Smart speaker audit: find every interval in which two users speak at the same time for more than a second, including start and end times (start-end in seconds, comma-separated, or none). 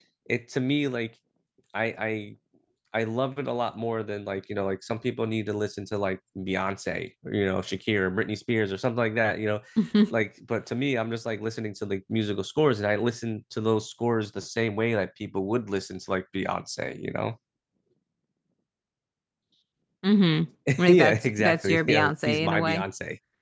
20.9-22.8